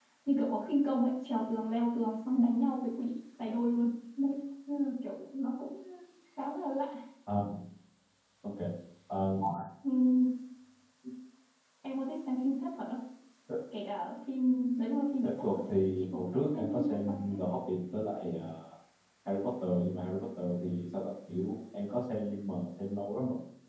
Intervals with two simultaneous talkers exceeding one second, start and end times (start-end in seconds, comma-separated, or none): 15.4-17.4